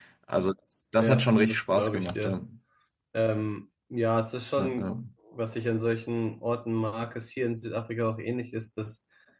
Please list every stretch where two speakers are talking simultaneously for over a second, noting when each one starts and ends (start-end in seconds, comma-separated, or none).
1.0-2.4